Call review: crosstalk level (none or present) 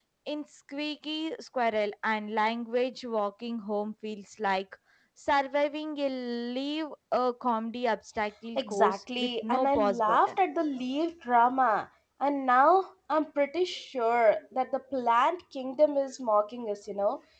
present